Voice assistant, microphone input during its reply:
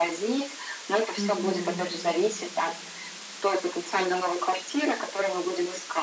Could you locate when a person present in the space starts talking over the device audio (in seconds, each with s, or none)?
1.2 s